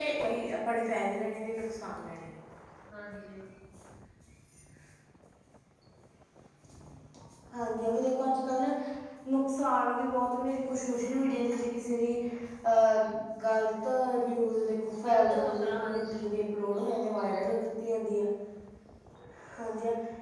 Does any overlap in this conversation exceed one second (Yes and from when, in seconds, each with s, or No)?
Yes, from 15.0 s